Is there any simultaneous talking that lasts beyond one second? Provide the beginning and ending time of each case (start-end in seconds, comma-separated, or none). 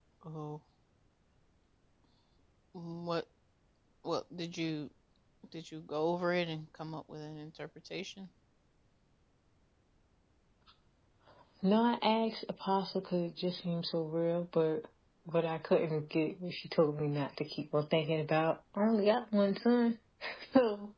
none